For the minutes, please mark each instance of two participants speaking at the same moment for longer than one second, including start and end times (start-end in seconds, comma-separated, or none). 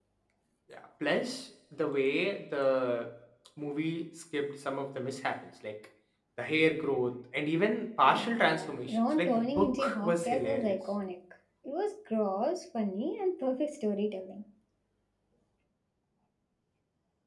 8.0-10.8